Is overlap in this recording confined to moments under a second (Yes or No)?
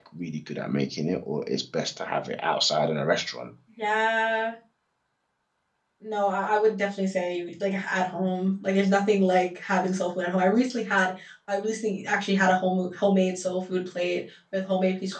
Yes